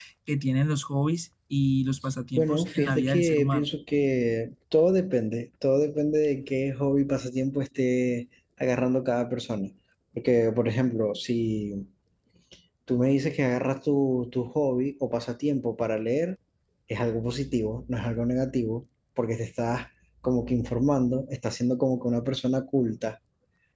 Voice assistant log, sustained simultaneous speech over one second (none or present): present